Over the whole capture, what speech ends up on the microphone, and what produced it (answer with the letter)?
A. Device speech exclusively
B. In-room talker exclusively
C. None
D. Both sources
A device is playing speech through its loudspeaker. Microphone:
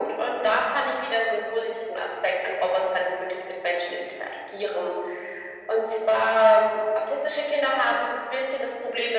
A